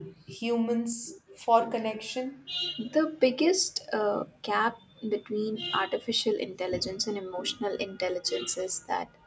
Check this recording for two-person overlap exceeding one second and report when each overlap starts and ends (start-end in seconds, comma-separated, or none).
none